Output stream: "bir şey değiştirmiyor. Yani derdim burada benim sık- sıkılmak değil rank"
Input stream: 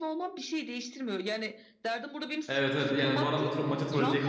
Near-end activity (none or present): present